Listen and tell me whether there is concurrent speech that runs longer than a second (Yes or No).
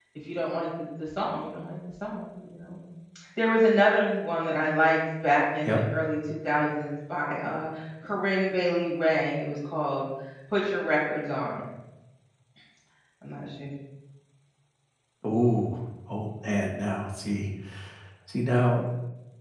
No